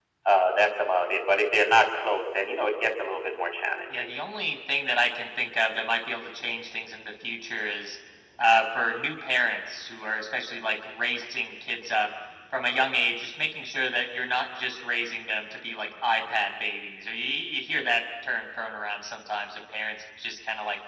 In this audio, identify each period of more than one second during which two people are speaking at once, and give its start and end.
none

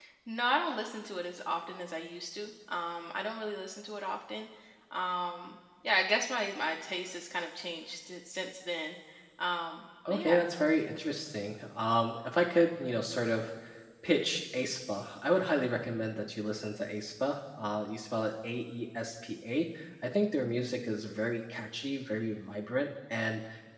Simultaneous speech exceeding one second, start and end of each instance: none

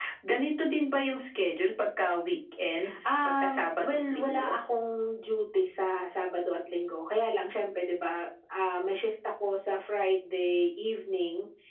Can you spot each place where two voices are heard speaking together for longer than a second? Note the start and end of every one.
3.0-4.6

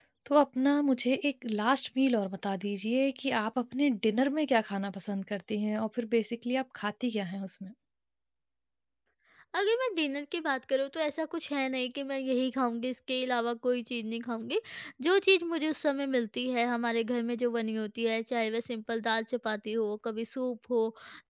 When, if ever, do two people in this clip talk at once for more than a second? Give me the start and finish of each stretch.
none

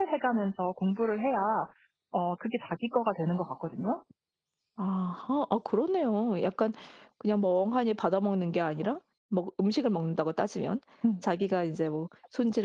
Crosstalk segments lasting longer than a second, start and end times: none

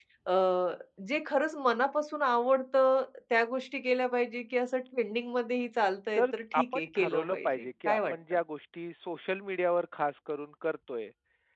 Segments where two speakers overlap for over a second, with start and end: 6.2-8.4

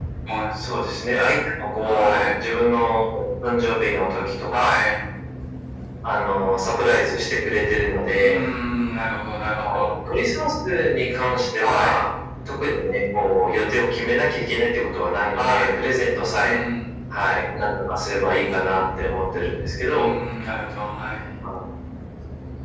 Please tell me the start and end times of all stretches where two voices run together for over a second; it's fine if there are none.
none

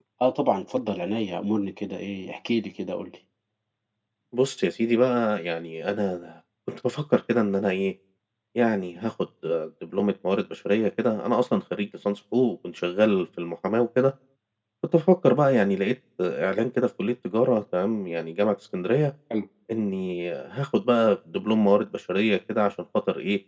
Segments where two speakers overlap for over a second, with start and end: none

